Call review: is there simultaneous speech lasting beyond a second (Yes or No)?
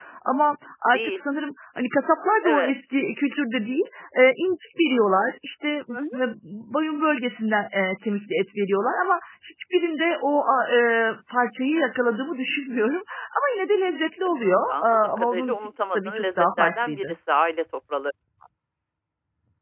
Yes